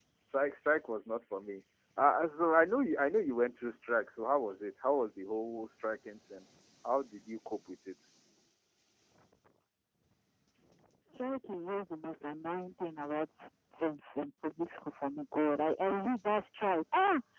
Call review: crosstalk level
none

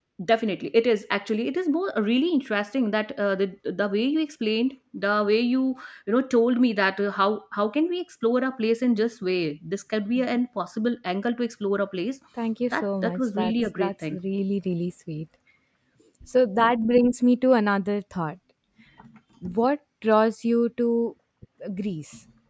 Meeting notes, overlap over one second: present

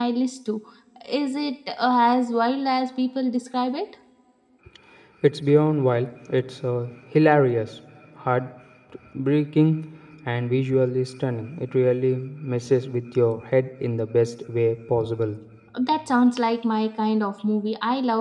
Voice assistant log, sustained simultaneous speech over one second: none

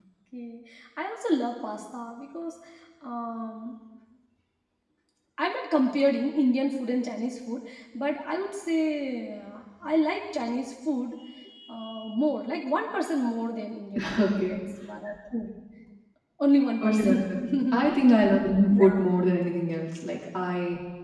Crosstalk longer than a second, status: present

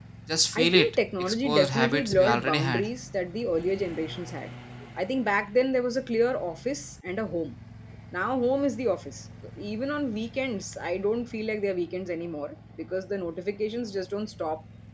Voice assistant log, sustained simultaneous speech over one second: present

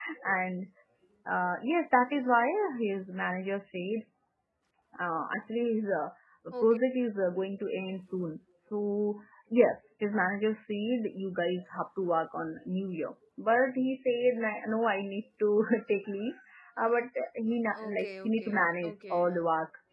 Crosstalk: present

